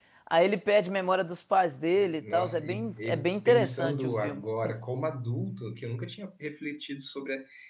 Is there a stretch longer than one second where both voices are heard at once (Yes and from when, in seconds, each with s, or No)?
Yes, from 2.0 s